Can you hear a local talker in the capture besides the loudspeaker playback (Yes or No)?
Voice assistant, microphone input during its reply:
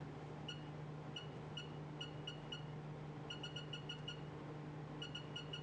No